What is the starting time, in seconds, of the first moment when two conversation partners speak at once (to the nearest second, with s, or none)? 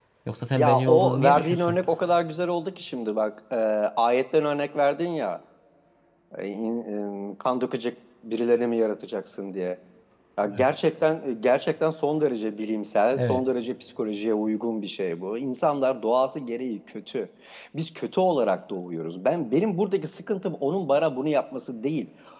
1 s